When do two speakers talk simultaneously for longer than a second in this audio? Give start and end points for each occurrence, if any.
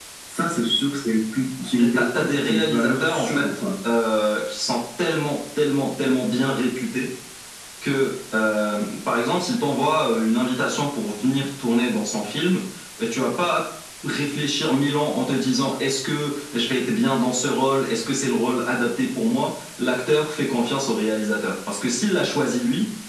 1.8-3.5

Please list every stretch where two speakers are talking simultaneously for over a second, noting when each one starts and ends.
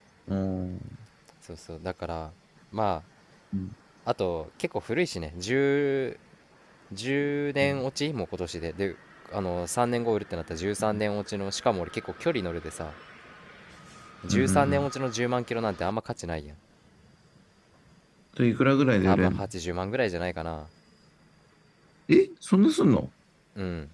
none

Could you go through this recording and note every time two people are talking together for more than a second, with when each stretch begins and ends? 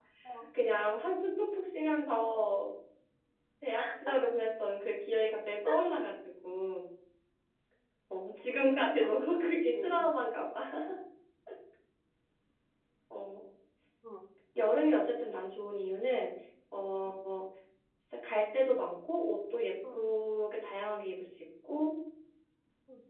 8.6-10.1

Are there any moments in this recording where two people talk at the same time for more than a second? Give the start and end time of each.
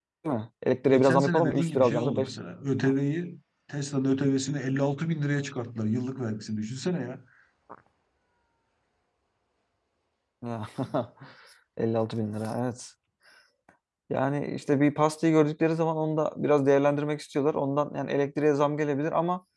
0.8-2.3

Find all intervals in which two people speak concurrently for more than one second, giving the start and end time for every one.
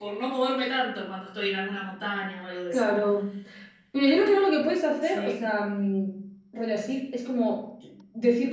none

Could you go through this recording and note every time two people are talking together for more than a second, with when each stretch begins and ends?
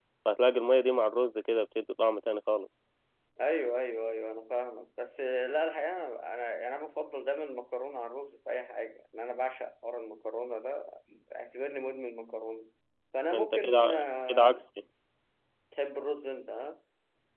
13.3-14.6

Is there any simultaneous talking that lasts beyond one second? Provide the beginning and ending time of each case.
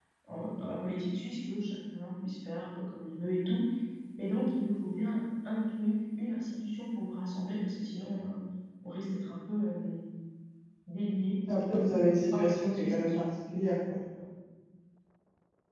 11.8-13.2

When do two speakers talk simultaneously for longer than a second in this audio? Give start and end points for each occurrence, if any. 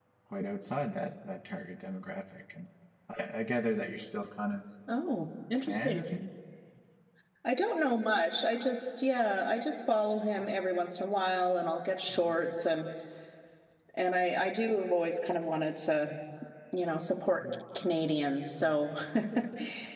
none

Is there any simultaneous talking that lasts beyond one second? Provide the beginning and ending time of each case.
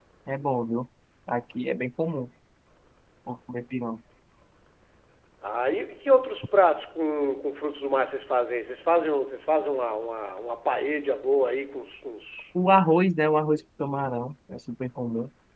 none

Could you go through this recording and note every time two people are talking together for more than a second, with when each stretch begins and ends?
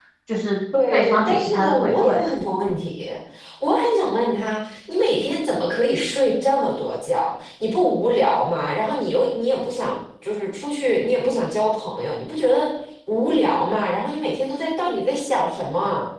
0.9-2.2

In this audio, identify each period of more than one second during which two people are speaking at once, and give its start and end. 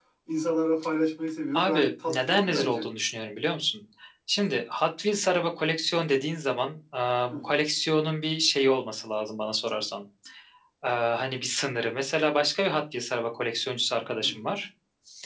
1.5-2.9

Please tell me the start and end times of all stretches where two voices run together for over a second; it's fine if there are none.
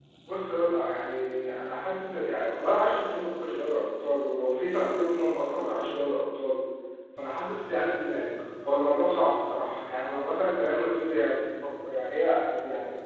none

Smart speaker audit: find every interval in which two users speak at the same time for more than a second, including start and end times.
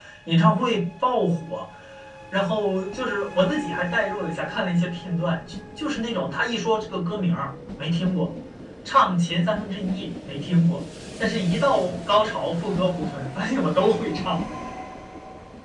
none

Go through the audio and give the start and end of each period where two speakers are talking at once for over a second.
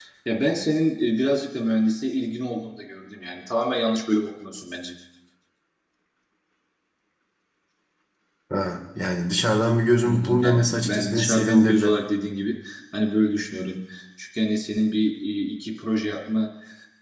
10.0-11.9

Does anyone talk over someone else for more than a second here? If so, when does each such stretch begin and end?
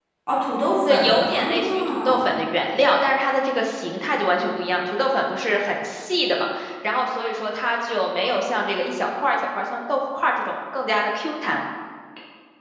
0.8-2.4

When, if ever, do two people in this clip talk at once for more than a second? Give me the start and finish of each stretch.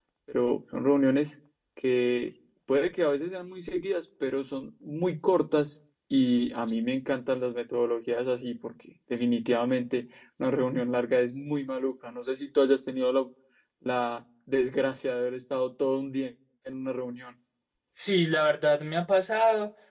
none

